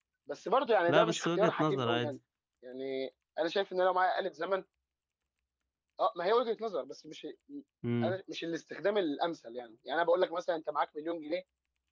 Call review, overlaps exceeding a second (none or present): present